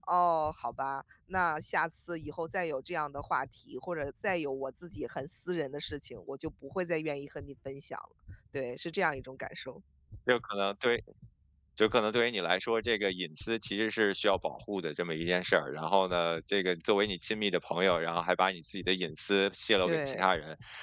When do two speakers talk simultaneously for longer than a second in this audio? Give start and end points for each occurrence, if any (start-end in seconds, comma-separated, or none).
none